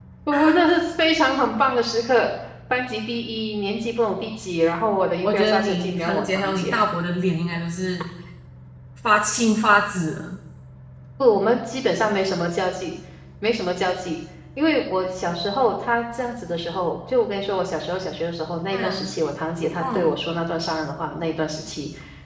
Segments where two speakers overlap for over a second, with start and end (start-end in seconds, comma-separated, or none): 5.2-6.7